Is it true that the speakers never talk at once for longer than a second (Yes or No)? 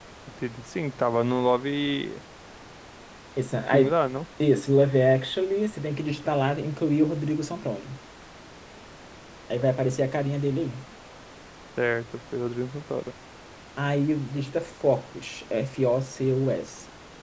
Yes